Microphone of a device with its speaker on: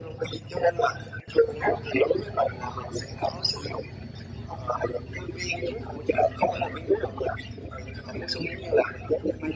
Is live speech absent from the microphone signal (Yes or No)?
Yes